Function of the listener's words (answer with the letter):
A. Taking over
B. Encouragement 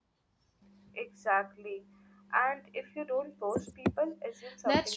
A